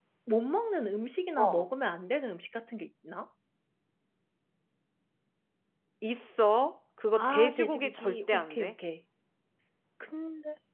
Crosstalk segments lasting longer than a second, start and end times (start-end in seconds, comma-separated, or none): 7.2-8.7